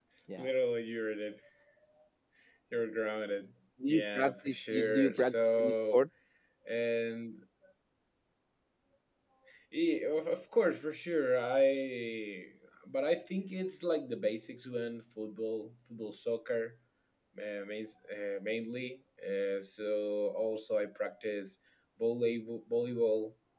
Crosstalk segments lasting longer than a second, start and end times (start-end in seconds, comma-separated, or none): 3.9-6.0